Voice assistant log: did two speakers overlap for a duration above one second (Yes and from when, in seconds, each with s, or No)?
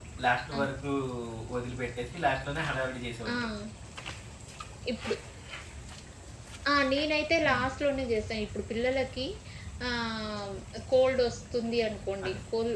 No